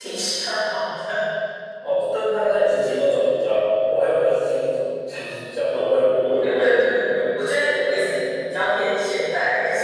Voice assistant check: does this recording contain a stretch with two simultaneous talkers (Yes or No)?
Yes